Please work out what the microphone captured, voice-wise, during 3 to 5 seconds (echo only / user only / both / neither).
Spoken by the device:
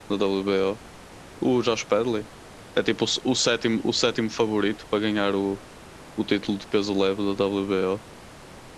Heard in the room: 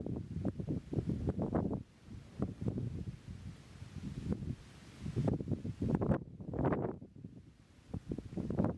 neither